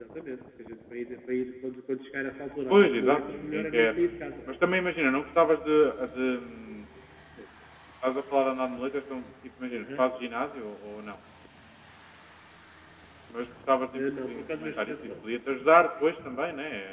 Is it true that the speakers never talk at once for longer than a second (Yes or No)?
No